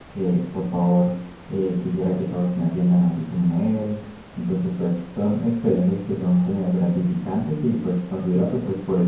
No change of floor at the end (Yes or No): Yes